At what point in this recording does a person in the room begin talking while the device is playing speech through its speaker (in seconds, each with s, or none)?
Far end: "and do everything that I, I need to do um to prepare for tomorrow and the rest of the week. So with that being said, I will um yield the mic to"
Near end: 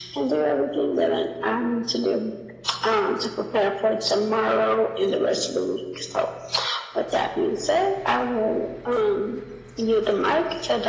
none